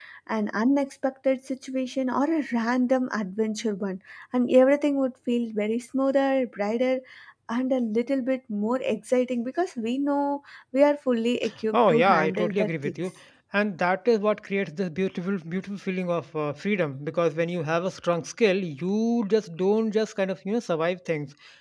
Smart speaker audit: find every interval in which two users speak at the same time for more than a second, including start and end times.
11.7-13.0

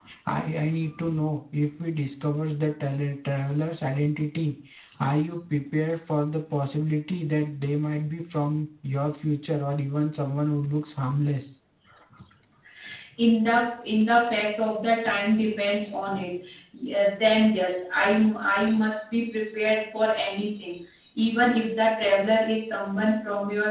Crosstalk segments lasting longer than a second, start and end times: none

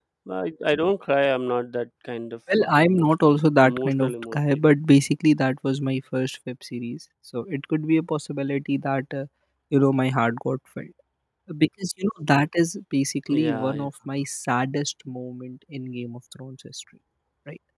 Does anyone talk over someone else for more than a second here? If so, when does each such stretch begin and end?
2.6-4.7

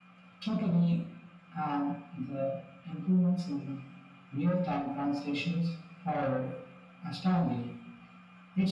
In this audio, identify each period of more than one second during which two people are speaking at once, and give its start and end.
none

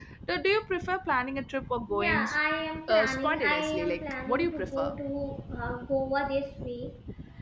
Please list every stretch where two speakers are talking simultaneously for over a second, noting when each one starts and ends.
2.9-4.8

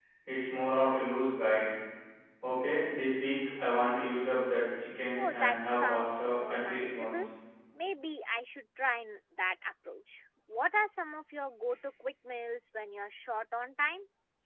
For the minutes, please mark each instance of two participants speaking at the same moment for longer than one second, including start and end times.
5.2-7.2

